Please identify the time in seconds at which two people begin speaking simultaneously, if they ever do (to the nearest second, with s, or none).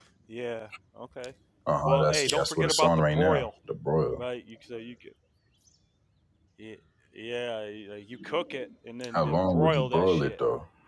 2 s